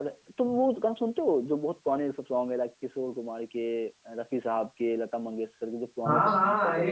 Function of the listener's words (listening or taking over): taking over